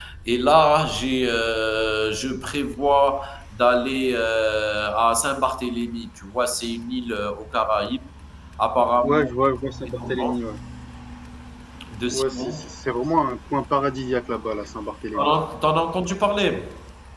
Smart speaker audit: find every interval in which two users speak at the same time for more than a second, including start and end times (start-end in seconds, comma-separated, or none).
none